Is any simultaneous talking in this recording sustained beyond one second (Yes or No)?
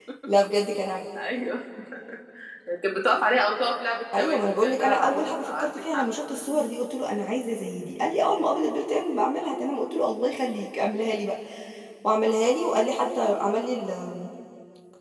Yes